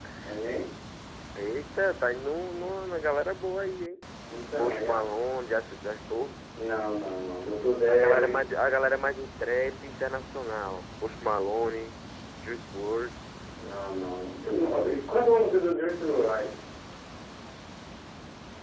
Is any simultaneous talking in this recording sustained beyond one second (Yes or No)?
No